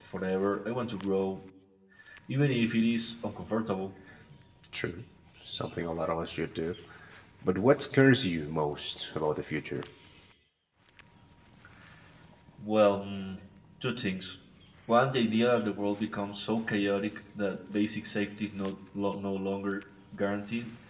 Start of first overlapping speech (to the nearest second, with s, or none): none